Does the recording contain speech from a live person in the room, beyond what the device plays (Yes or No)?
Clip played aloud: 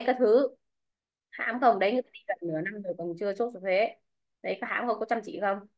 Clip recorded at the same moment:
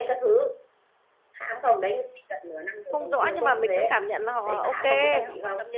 Yes